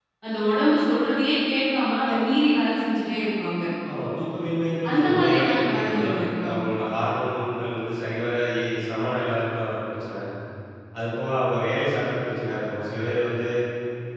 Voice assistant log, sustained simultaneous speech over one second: present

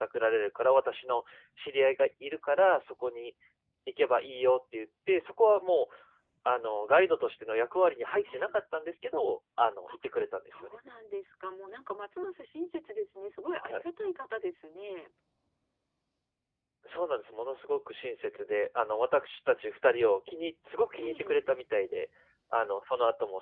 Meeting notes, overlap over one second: none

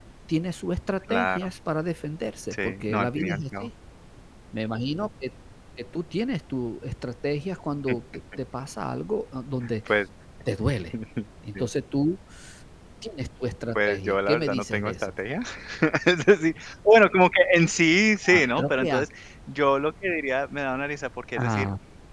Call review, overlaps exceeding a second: present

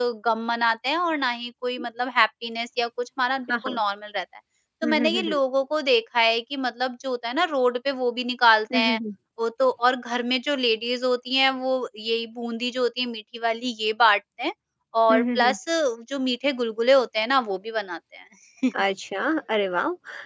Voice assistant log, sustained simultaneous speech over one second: none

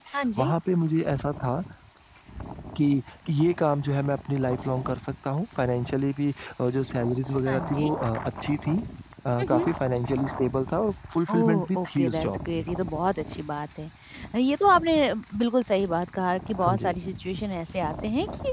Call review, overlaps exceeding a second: present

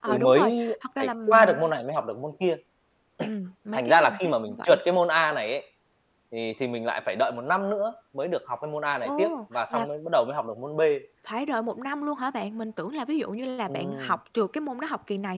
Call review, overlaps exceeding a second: present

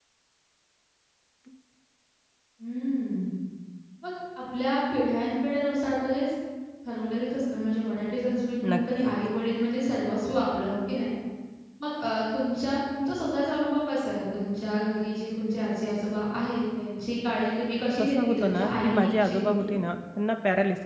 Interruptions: present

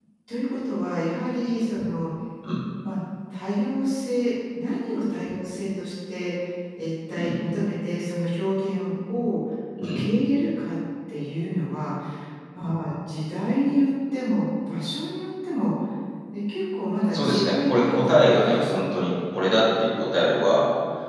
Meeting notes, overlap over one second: present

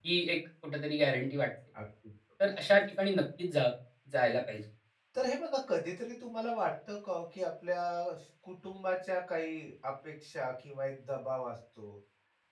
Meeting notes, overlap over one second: none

